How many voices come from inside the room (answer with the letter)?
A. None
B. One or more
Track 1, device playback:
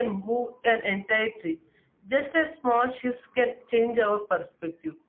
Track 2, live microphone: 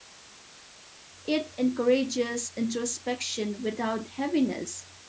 B